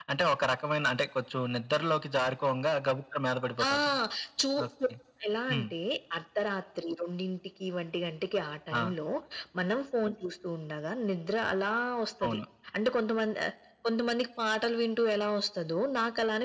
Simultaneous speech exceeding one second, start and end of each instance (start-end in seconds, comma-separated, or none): none